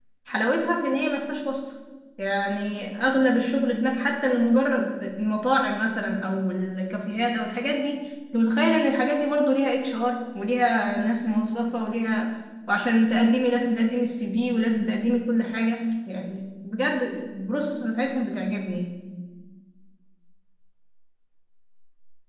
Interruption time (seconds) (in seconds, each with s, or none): none